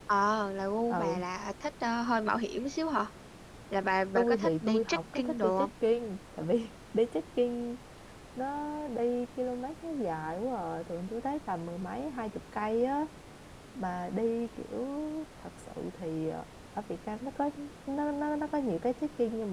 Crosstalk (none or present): present